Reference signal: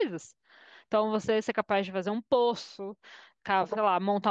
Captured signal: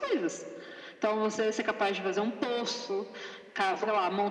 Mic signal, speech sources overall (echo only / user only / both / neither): echo only